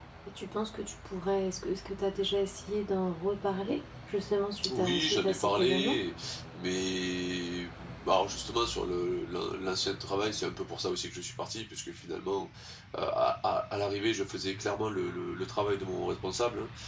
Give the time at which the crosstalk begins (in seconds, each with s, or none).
4.6 s